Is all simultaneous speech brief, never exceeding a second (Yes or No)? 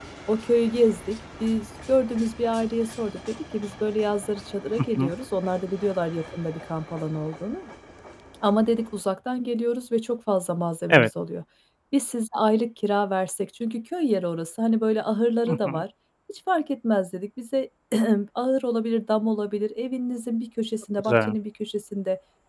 Yes